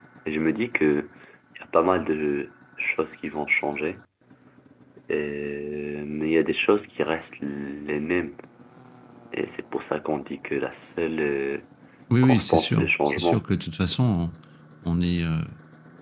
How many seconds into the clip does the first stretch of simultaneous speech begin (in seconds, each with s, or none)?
12.2 s